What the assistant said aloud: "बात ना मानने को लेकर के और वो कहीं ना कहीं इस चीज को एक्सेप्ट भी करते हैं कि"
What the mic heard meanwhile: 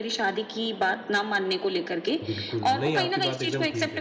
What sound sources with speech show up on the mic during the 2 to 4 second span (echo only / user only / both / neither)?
both